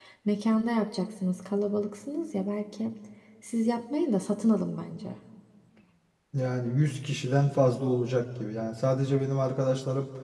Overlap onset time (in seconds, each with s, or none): none